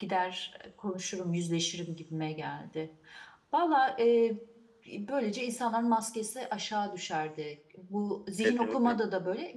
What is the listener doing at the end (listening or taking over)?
listening